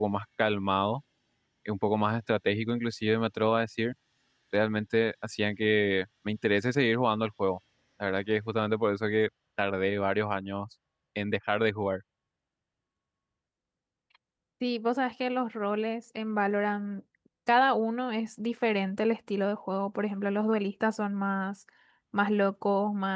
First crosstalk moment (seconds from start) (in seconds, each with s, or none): none